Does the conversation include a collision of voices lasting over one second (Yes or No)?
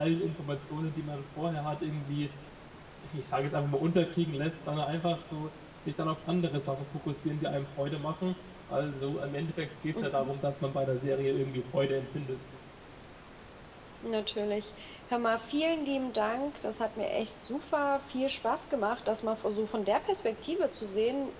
No